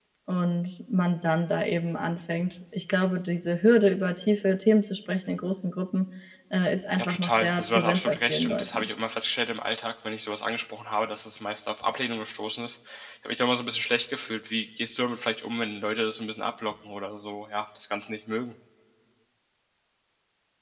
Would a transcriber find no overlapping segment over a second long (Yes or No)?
No